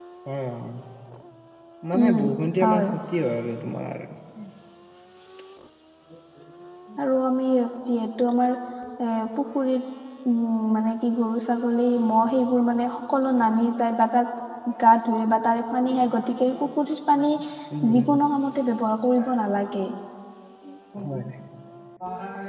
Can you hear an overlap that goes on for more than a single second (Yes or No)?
No